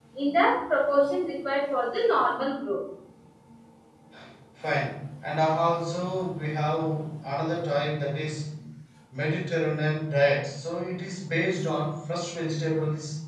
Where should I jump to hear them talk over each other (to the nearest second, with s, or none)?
none